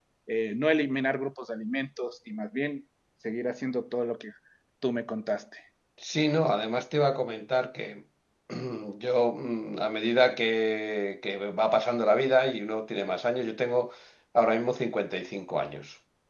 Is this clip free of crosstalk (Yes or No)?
Yes